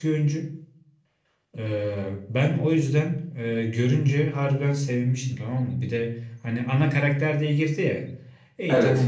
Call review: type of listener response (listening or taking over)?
listening